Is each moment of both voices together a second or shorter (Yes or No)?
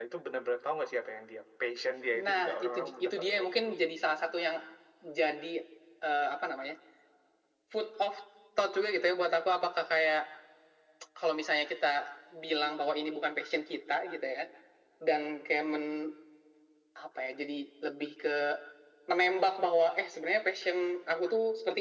No